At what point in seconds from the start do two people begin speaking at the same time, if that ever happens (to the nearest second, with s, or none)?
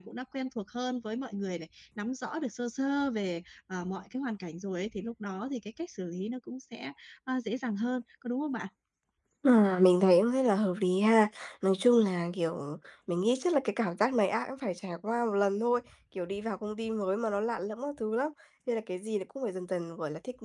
none